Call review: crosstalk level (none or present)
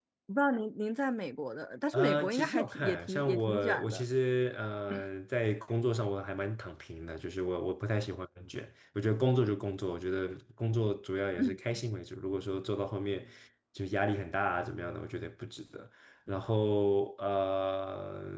present